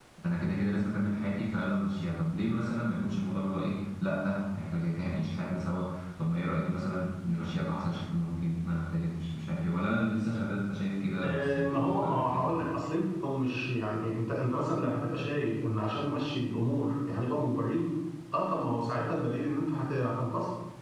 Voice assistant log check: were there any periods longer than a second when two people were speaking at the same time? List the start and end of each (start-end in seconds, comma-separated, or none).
11.2-12.5